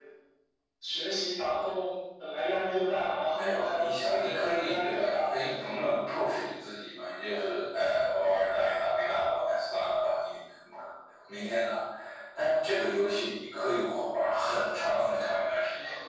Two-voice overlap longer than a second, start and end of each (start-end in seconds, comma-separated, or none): 3.4-5.4